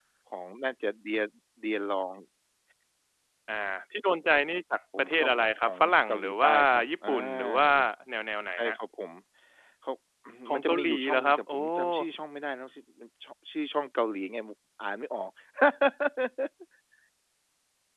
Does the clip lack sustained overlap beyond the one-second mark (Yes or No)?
No